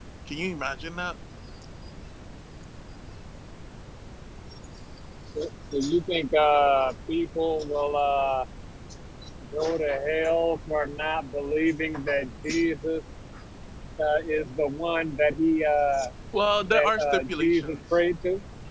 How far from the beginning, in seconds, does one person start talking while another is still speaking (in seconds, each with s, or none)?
16.7 s